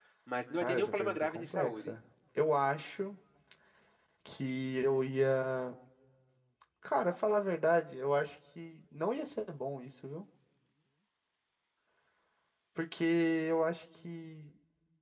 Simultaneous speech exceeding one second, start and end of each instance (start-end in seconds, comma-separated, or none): 0.6-1.9